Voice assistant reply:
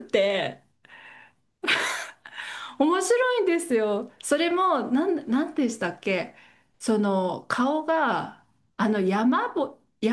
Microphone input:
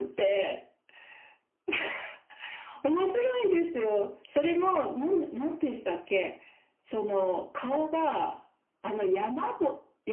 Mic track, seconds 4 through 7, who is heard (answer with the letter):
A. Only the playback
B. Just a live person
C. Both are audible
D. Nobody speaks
A